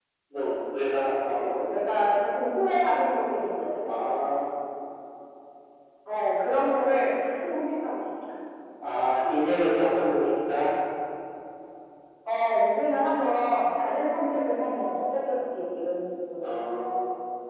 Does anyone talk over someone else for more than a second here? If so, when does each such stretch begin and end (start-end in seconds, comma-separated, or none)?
none